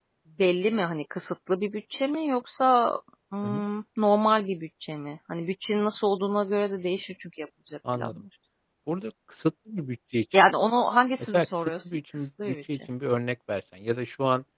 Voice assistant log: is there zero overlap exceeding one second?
No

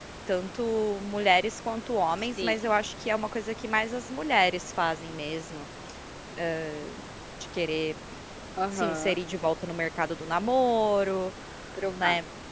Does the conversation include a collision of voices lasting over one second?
No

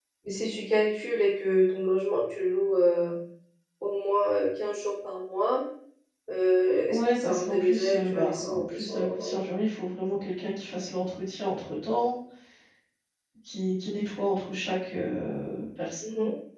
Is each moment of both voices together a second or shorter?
No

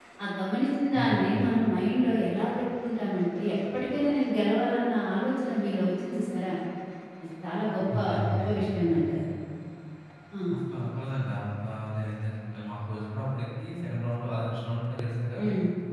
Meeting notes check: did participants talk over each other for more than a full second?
No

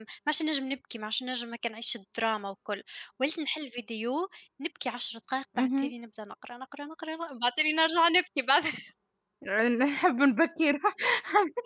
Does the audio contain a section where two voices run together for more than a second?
No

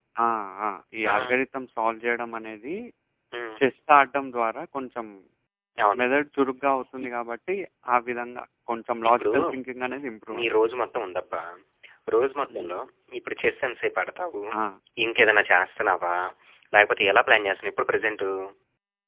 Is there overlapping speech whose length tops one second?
No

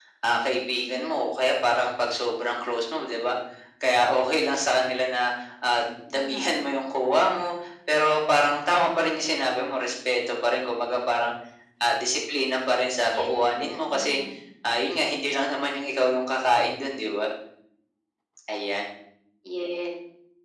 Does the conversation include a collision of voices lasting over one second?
No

